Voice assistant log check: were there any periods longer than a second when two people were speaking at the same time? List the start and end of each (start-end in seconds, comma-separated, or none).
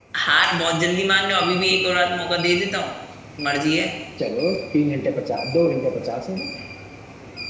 none